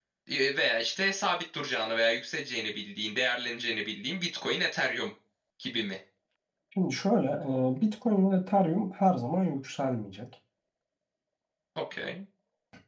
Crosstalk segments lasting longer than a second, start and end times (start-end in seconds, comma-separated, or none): none